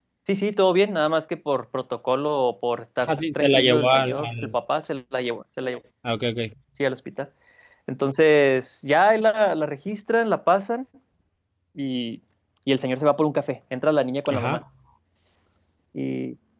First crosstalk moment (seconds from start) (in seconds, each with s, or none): 3.1 s